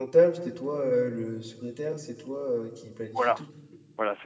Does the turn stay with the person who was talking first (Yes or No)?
No